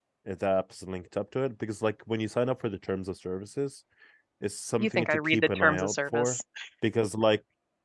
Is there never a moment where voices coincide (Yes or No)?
No